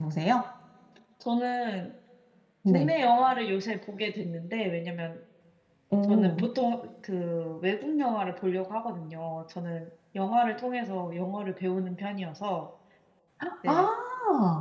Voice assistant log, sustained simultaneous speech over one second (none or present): none